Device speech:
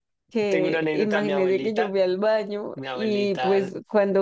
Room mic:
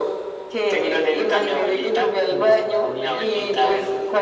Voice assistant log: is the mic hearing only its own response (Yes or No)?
No